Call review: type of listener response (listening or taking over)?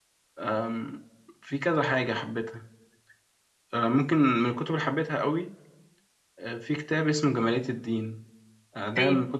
listening